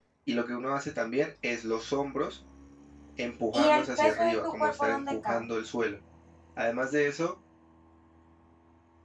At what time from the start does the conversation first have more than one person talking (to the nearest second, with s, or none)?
4 s